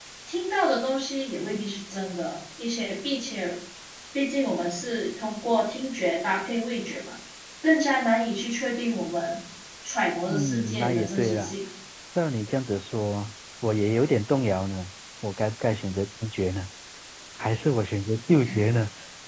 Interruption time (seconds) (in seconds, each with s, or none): 10.3 s